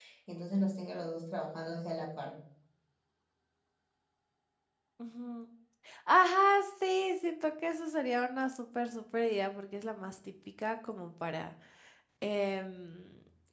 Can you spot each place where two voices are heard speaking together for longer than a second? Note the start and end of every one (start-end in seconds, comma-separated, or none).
none